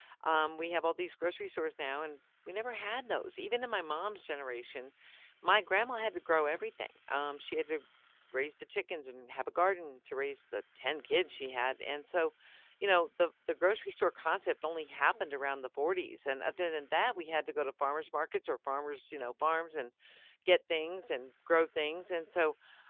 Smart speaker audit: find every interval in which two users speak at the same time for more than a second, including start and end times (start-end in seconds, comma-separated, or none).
none